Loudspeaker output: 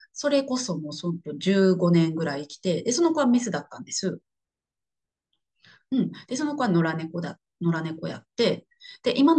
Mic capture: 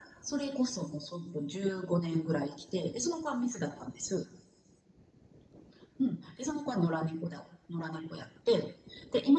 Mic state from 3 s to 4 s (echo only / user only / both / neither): echo only